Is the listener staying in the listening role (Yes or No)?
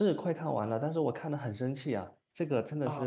No